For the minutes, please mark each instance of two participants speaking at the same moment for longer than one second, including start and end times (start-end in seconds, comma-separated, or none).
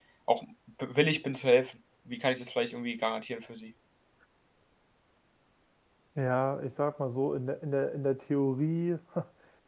none